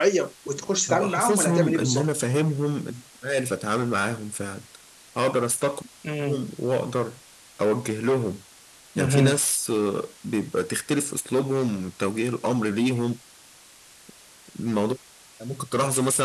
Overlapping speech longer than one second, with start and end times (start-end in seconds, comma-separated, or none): 0.9-2.1